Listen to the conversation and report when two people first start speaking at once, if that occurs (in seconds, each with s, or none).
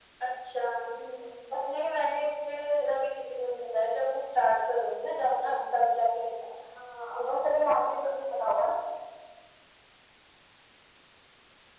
none